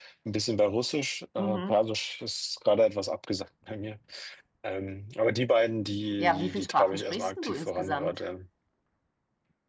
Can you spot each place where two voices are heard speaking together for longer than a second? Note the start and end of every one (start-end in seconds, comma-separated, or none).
6.2-8.1